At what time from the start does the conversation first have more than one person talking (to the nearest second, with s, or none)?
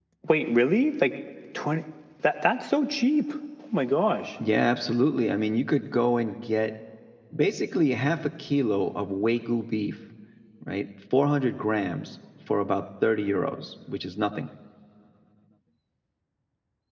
none